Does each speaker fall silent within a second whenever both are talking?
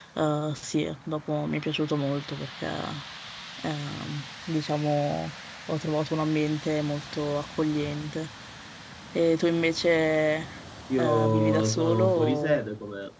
No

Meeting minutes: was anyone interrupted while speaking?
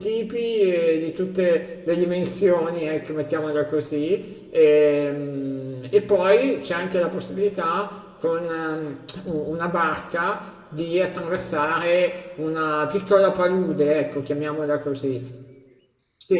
No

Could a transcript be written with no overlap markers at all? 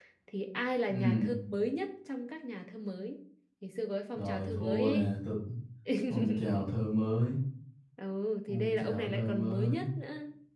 No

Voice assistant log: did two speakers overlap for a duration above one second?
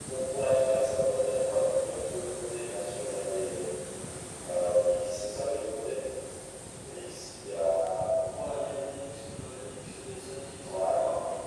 No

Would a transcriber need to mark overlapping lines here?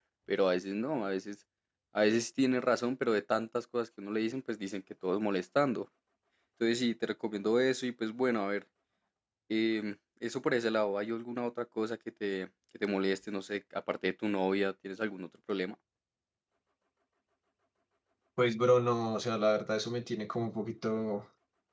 No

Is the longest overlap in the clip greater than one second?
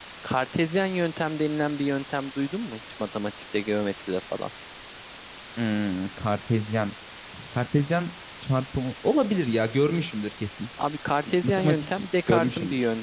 Yes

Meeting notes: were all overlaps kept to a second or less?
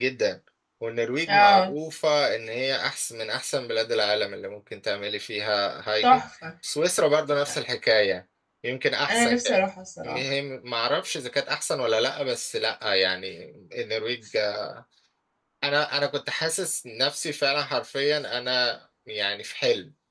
Yes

